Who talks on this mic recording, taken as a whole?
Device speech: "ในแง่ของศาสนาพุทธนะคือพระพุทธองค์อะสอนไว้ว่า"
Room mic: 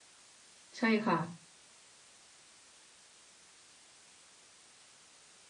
user only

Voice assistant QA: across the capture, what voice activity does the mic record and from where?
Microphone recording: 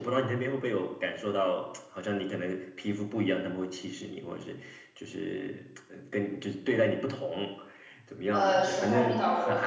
both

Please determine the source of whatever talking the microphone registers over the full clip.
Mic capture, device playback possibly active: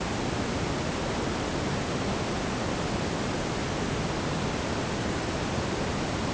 neither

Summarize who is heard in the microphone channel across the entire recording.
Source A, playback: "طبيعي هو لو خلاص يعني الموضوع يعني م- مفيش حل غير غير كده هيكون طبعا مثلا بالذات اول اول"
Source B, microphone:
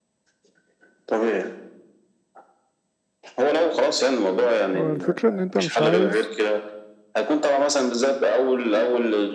both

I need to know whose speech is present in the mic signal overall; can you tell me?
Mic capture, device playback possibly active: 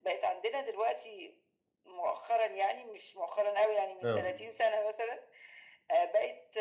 both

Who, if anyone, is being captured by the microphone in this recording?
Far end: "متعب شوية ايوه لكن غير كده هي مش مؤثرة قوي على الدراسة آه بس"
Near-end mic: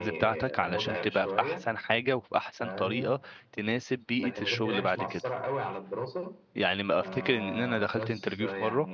both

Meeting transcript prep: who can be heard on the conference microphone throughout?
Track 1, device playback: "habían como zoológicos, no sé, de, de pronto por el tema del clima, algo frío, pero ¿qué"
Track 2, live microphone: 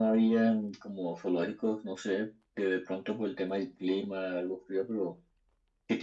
echo only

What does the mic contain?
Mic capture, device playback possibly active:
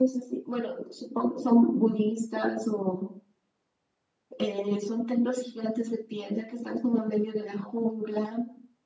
echo only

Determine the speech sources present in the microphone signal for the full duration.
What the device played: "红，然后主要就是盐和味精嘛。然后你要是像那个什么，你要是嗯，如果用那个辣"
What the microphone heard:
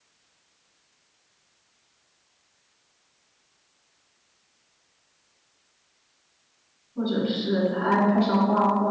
user only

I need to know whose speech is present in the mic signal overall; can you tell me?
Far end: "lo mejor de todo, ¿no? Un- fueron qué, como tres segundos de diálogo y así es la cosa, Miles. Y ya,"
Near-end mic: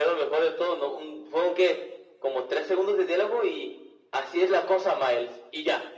echo only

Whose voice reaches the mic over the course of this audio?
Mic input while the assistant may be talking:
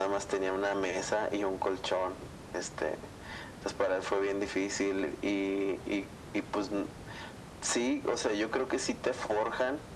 echo only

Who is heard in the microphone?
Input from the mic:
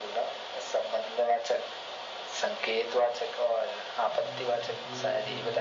both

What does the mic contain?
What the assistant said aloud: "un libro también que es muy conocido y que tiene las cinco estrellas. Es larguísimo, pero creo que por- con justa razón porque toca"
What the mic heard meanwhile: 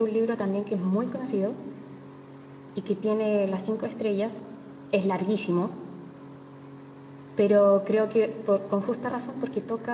echo only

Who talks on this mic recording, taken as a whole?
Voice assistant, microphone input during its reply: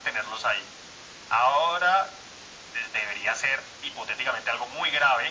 echo only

